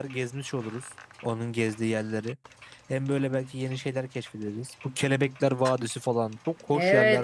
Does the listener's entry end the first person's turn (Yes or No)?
Yes